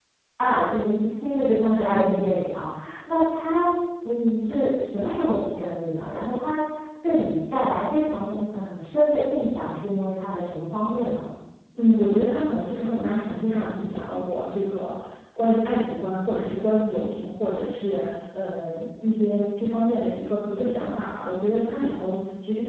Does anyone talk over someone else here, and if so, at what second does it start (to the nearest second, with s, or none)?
none